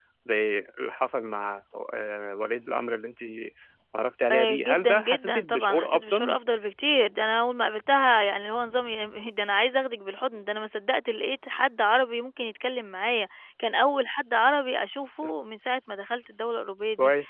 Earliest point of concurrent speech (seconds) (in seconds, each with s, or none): 4.3 s